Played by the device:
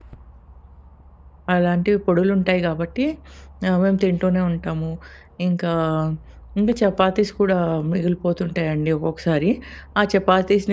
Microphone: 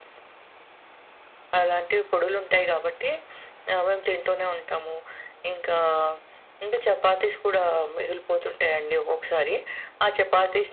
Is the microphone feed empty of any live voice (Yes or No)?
Yes